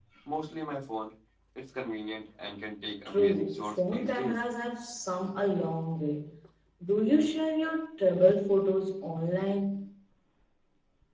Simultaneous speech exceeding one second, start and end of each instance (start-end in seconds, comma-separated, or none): 3.0-4.4